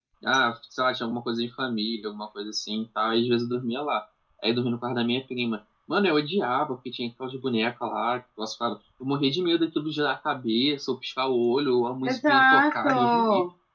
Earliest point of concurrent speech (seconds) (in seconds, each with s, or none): 12.1 s